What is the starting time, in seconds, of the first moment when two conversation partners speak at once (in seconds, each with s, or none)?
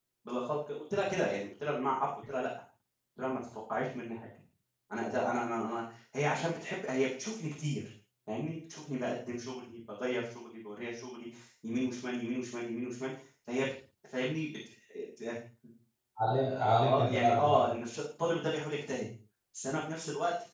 16.3 s